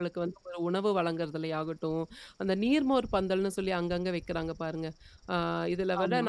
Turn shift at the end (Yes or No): No